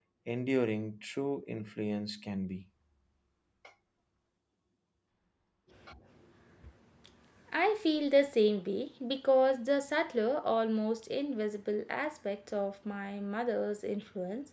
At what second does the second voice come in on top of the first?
none

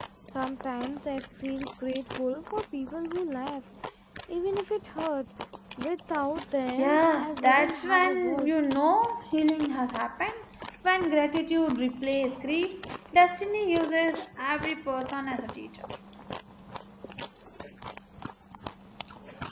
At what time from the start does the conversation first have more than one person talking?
6.8 s

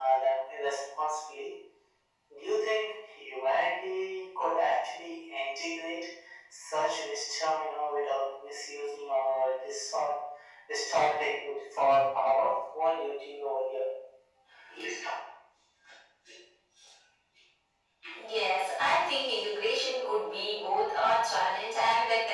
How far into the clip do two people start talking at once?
none

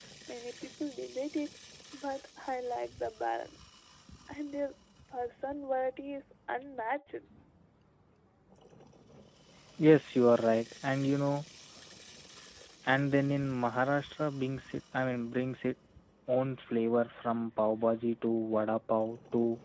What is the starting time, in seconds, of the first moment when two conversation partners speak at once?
none

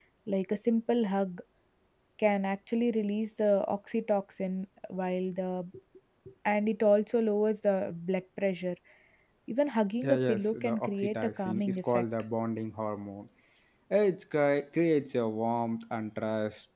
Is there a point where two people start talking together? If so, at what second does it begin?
10.0 s

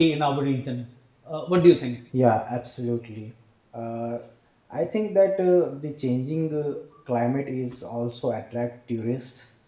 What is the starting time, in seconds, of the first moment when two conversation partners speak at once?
none

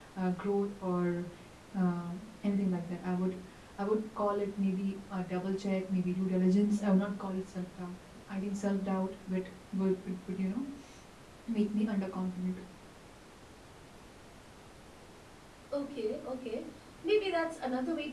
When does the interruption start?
none

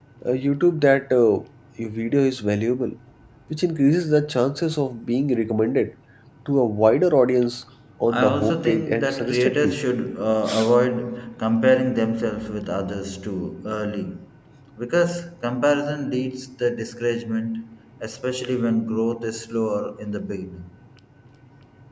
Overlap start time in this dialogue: 8.1 s

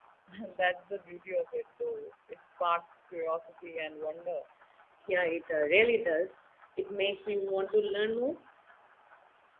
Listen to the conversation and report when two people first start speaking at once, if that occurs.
none

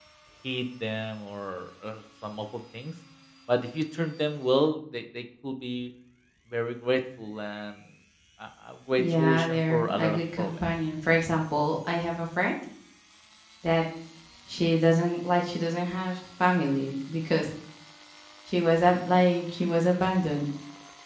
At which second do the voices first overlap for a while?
9.0 s

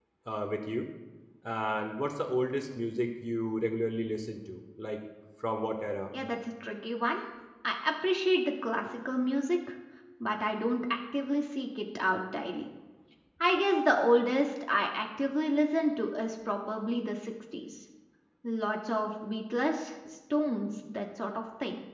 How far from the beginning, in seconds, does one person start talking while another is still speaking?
none

